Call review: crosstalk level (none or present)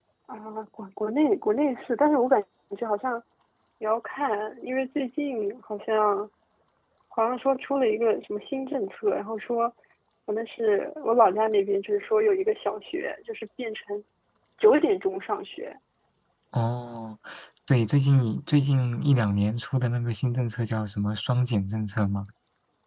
none